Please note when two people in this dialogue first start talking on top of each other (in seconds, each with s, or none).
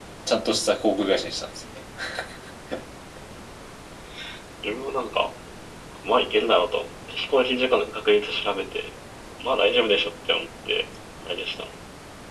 none